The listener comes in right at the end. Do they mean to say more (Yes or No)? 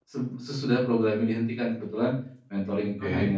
No